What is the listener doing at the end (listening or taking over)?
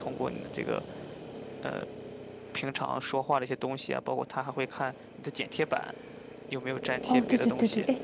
taking over